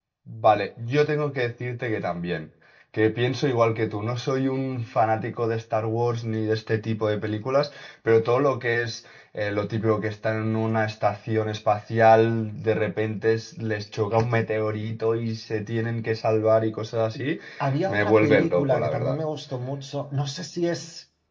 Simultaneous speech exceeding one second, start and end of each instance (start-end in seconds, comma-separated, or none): 17.9-19.2